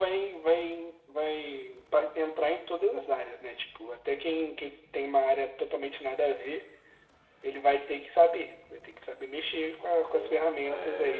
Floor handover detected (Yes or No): Yes